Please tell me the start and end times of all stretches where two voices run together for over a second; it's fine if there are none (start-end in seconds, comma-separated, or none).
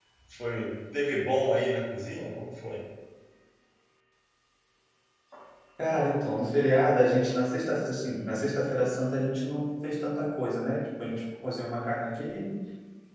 none